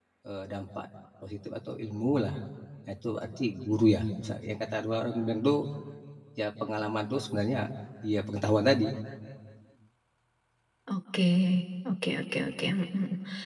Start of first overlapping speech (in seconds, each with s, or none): none